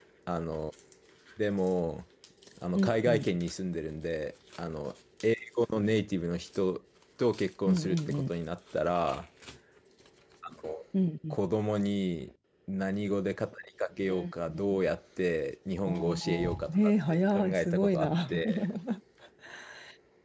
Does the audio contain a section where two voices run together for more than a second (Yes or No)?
Yes